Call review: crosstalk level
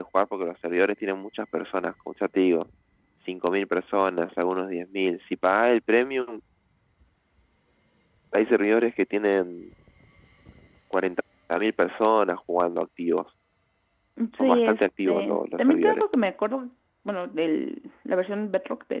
present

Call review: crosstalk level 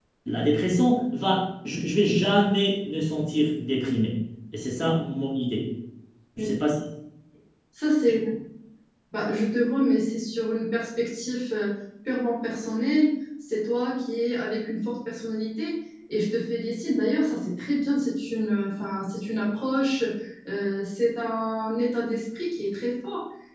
none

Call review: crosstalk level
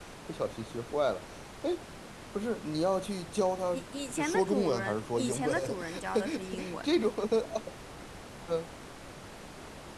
present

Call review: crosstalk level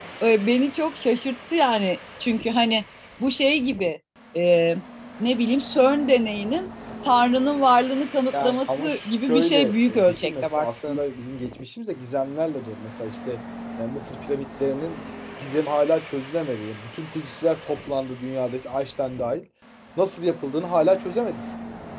present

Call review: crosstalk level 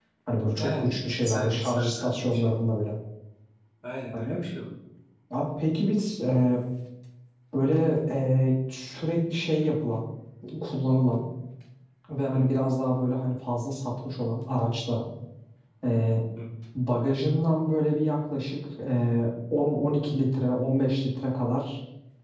present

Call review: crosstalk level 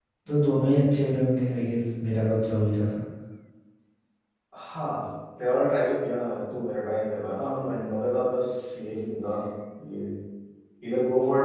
none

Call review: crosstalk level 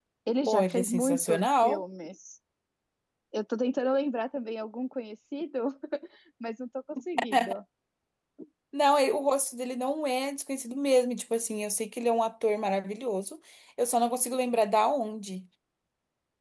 present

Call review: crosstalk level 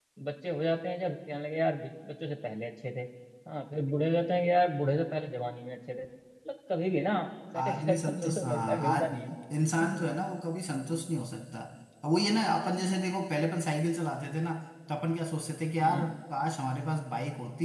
present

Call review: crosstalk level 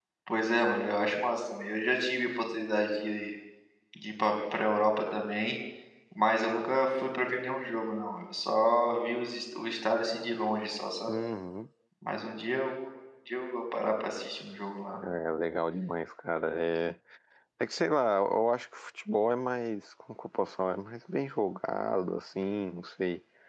none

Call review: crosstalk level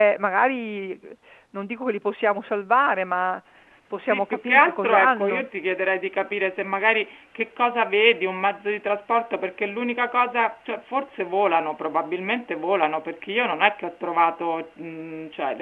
present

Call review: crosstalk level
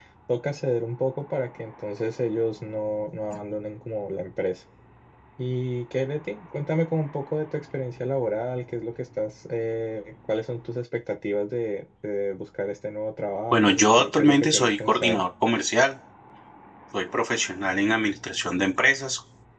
present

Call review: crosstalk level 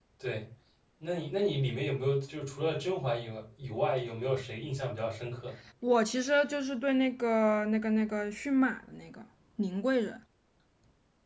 none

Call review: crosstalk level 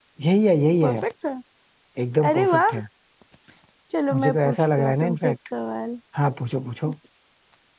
present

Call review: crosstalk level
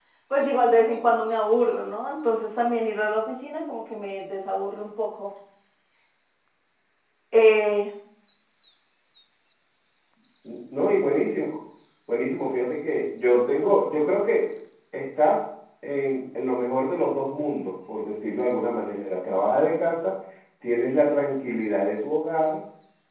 none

